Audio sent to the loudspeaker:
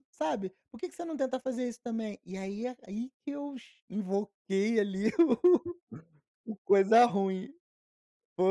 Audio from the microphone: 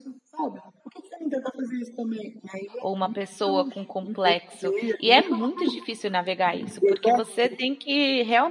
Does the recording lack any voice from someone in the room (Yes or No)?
No